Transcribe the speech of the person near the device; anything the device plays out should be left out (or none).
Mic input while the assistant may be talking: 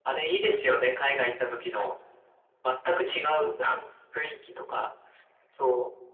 none